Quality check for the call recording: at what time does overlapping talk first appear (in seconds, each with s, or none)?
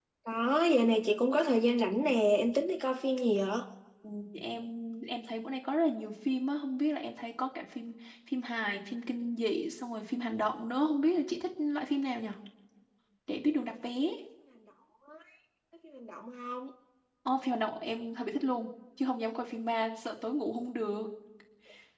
none